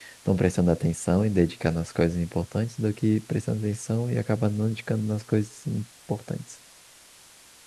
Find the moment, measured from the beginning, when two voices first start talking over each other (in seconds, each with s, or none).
none